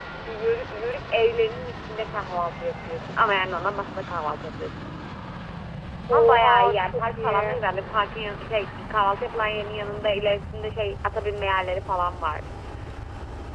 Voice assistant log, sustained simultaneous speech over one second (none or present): present